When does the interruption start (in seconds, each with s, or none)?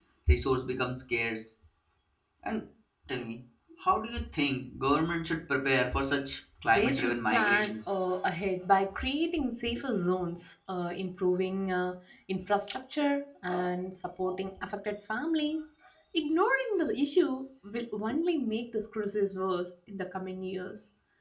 6.6 s